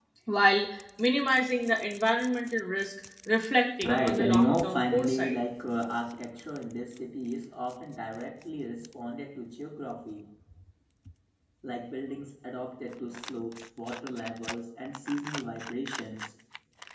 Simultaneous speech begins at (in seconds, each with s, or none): 3.8 s